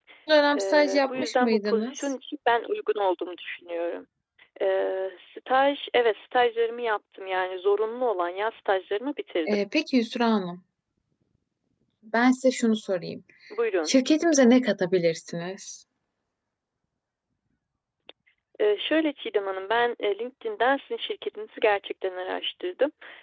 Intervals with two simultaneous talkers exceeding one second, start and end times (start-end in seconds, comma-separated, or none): 0.6-2.1